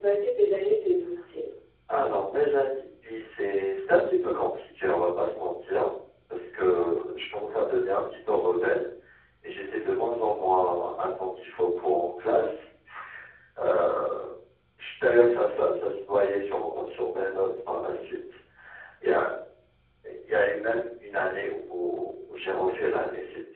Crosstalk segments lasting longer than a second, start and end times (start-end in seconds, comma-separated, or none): none